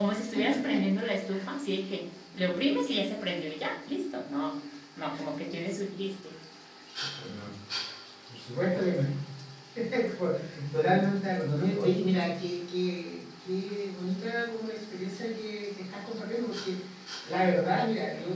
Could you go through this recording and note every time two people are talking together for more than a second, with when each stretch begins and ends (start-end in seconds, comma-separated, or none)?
none